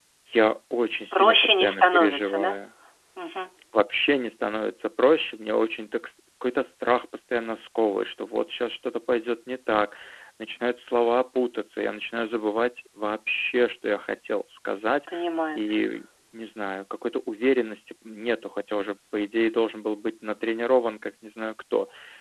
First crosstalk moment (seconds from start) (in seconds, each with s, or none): 1.1 s